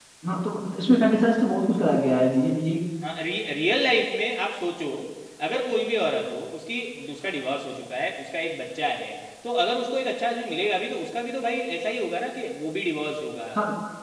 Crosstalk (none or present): none